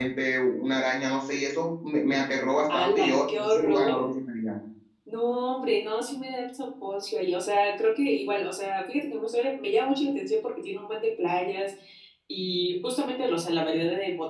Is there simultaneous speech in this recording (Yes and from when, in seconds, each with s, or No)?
Yes, from 2.7 s